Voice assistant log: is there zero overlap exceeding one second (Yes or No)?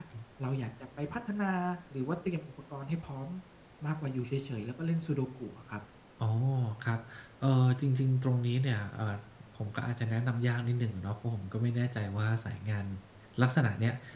Yes